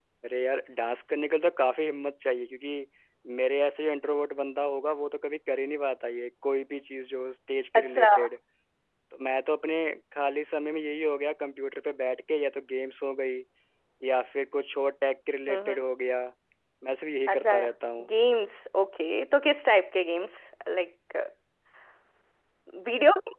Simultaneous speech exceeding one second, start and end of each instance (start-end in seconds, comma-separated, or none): none